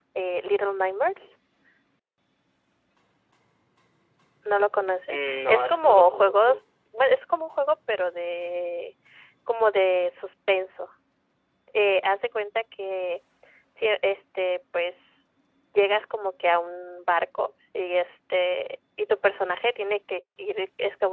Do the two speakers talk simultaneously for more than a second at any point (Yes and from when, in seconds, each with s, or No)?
Yes, from 5.1 s